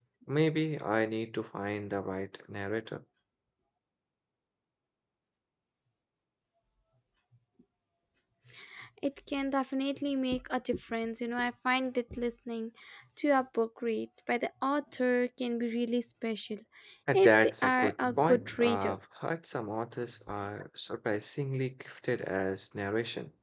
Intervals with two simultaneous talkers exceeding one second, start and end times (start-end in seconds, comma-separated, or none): 17.1-18.9